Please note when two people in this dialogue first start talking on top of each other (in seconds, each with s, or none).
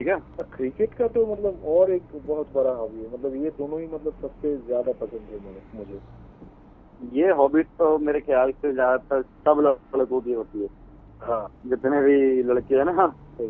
none